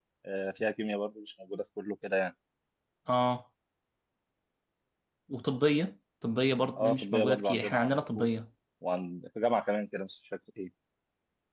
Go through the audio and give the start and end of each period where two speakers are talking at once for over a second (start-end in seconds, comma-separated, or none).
6.8-8.3